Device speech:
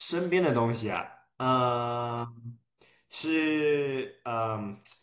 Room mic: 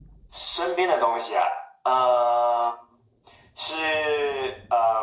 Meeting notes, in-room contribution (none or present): none